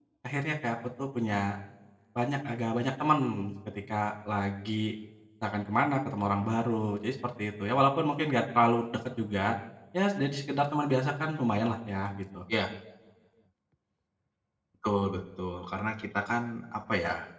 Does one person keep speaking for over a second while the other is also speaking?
No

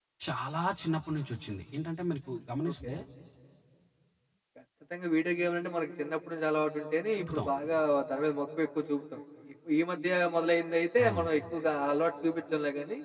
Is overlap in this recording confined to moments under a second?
Yes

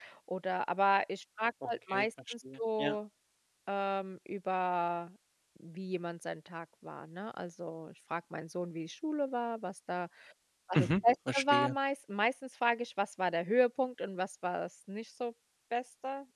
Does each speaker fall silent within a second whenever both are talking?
No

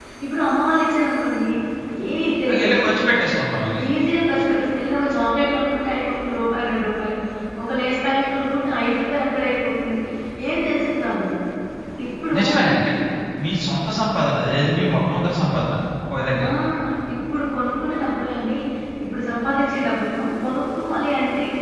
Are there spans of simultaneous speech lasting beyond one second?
No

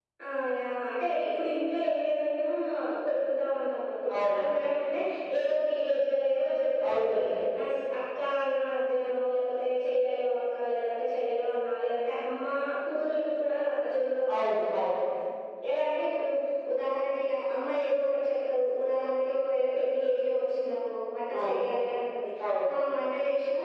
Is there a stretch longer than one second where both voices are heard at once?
No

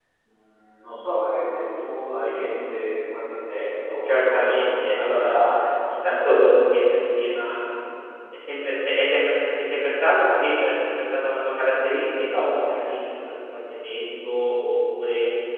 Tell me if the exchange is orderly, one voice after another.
No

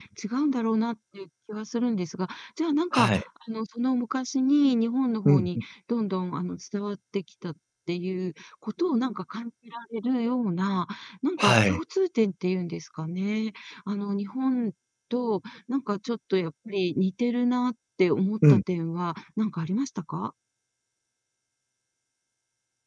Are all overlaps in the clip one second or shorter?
Yes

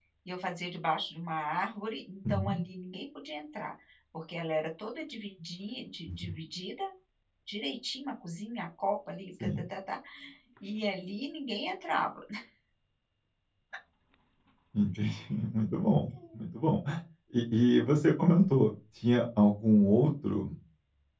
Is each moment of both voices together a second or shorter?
Yes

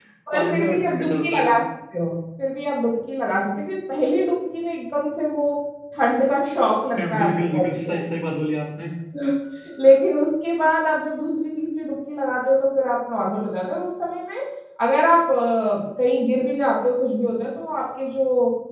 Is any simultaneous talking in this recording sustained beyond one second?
Yes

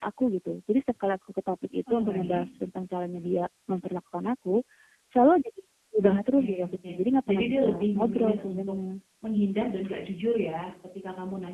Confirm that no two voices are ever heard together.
No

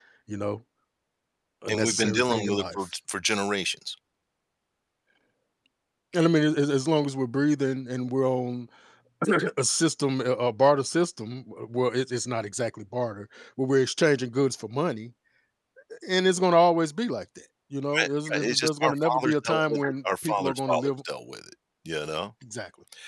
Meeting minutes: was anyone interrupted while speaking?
Yes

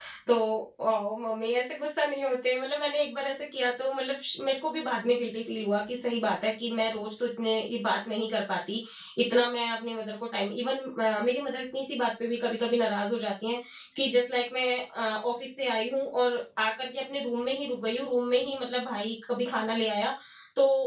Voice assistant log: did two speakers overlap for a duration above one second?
No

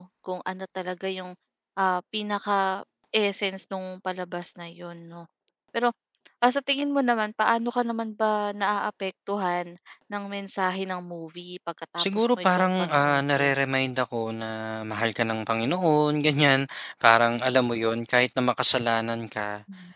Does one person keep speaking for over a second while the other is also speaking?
Yes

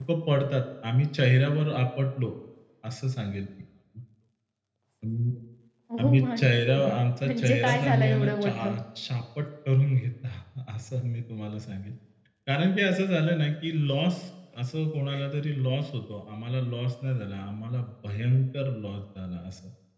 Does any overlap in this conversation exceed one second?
Yes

